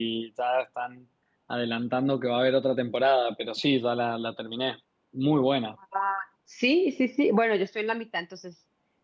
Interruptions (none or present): none